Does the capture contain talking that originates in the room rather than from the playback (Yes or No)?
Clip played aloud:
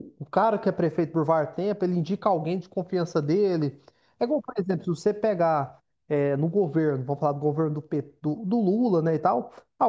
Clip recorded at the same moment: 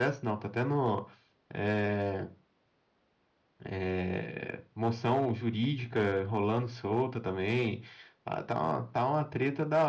Yes